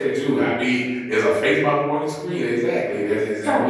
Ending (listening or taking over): taking over